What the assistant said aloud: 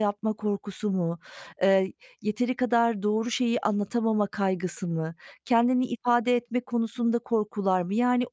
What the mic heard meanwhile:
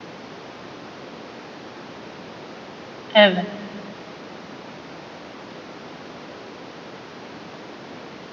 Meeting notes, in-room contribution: present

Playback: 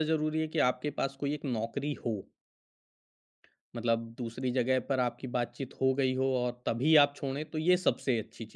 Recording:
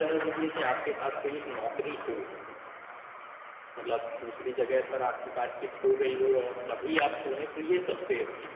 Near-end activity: none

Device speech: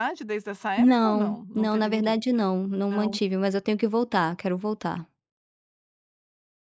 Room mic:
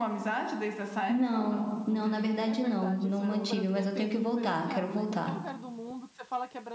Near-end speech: present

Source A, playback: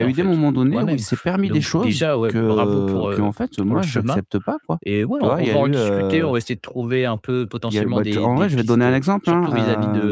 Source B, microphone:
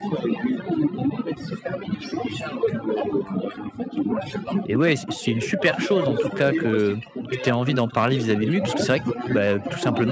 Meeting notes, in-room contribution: present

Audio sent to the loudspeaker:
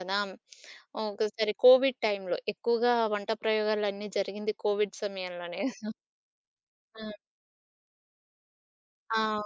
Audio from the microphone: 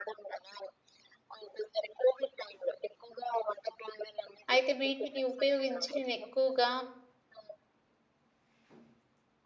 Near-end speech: present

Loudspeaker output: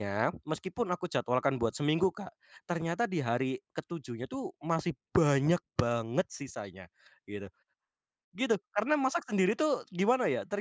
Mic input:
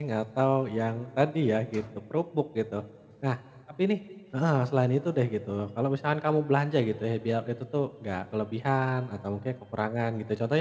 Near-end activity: present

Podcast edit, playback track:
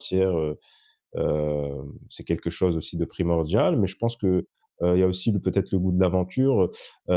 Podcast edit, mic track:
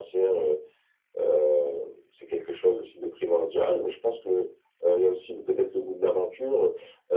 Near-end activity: none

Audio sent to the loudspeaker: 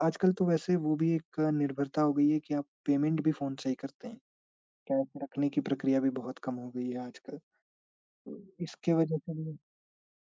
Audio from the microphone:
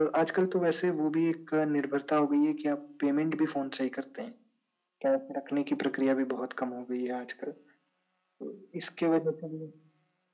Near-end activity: none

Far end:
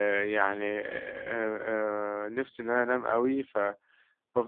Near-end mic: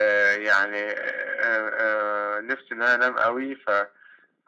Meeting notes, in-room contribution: none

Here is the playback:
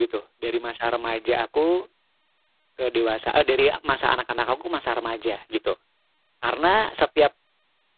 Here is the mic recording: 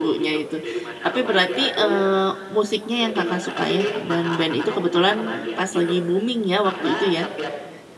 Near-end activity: present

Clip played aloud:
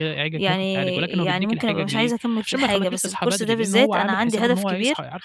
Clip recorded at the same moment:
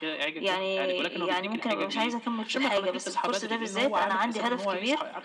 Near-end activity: none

